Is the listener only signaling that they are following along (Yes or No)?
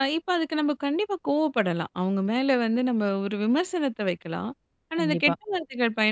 Yes